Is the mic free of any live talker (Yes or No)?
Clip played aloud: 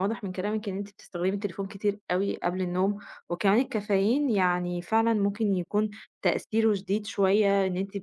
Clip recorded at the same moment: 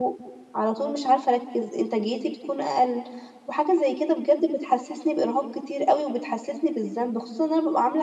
No